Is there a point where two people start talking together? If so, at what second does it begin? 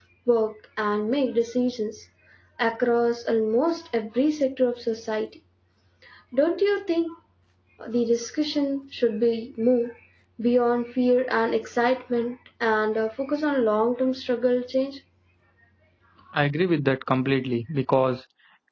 none

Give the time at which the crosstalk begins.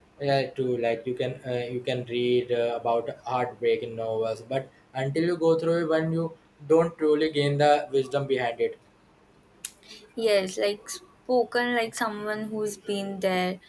none

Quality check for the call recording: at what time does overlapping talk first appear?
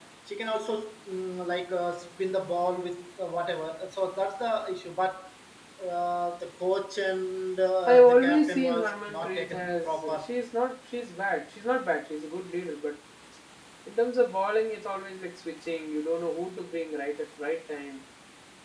7.9 s

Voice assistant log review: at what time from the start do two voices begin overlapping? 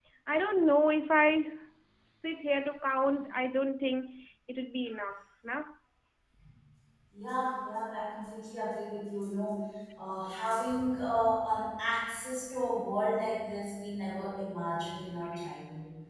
none

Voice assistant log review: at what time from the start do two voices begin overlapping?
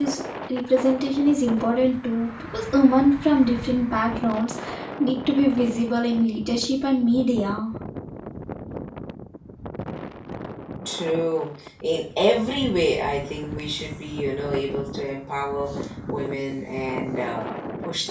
none

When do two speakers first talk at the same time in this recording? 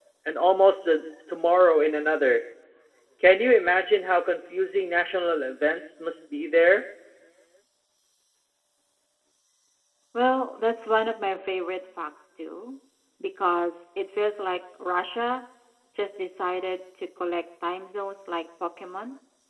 none

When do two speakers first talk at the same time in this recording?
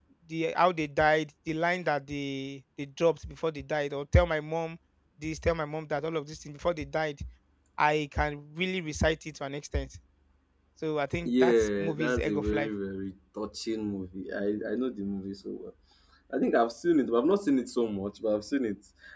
11.2 s

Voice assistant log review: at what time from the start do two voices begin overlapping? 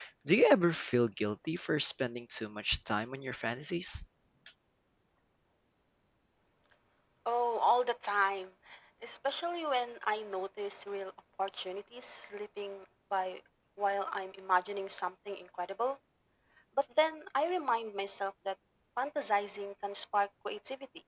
none

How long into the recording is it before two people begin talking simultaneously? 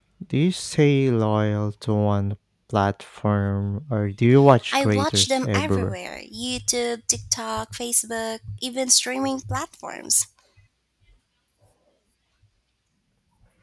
4.7 s

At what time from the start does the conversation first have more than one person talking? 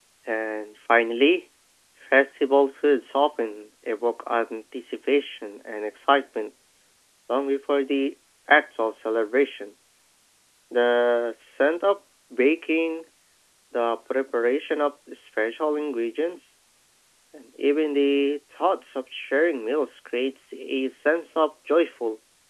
none

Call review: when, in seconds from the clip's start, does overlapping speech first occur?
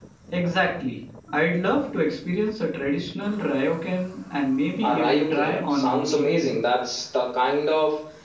4.8 s

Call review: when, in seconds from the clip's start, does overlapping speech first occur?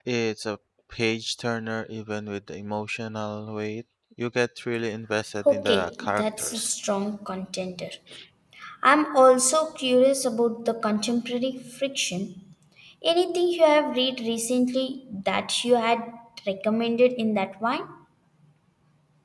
5.4 s

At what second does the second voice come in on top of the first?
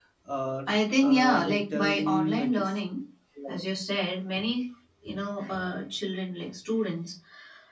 1.0 s

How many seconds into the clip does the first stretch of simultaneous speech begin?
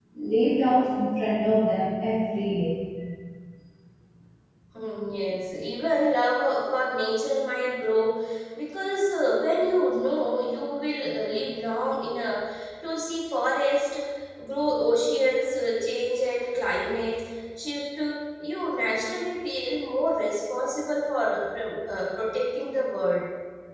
none

